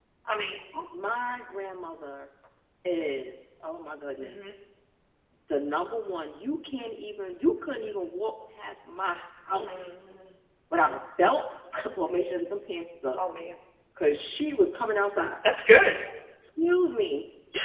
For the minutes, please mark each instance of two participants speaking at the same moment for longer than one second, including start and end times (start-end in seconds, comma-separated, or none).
none